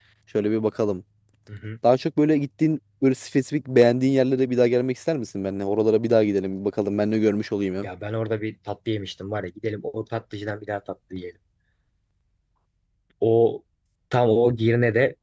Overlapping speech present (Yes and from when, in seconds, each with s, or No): No